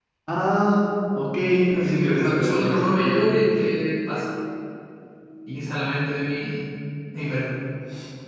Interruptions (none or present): present